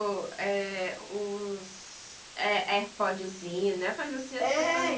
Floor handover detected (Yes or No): Yes